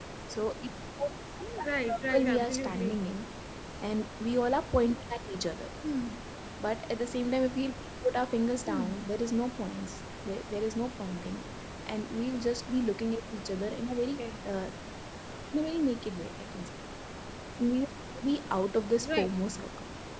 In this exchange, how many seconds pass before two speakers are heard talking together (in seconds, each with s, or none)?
1.6 s